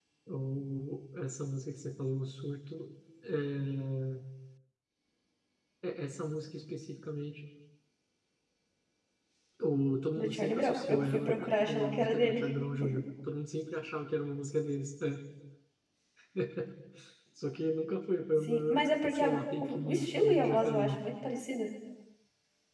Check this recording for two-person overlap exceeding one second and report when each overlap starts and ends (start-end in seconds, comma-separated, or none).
10.2-12.4, 18.4-21.0